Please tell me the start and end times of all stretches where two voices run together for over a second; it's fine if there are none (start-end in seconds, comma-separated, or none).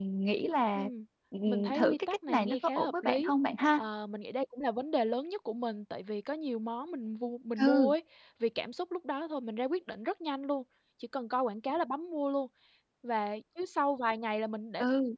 1.5-3.3